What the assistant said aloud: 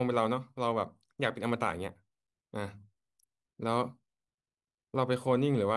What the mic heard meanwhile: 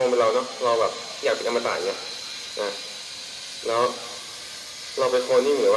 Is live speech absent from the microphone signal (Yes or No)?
Yes